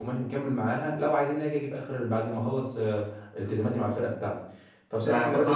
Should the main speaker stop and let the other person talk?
Yes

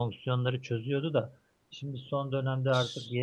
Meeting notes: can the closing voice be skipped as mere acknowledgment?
Yes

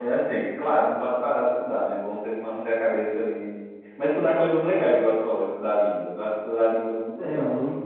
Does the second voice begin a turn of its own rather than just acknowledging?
Yes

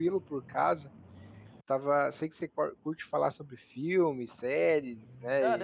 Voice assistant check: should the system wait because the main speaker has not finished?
No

